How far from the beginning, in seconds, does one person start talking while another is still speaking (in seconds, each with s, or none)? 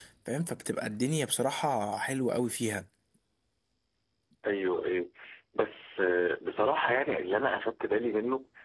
none